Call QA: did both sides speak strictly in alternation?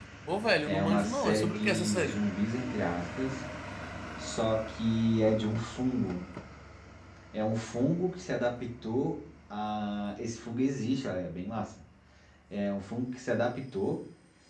No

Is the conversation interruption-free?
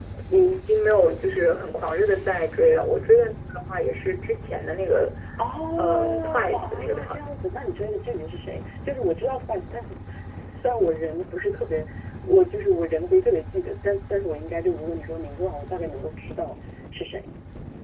No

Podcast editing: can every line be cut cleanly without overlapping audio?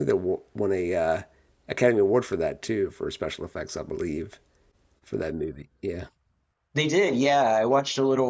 Yes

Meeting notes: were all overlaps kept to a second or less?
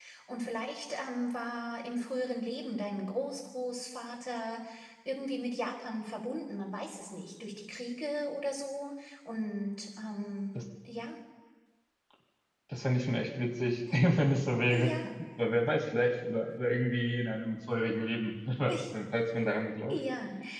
Yes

